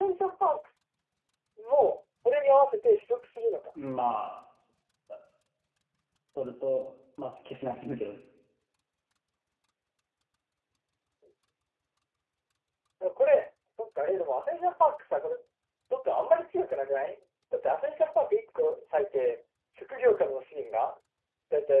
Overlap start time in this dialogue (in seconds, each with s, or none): none